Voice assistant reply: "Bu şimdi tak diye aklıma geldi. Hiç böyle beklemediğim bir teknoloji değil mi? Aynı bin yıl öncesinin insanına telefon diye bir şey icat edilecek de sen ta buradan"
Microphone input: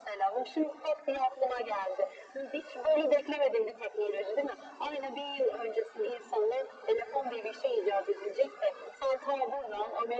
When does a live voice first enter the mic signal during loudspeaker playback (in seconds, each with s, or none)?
none